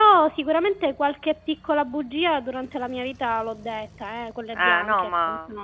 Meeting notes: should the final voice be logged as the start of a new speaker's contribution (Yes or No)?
Yes